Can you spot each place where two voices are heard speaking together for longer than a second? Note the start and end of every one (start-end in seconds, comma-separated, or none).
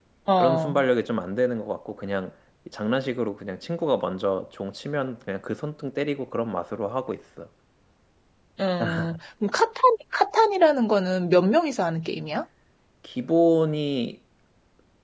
none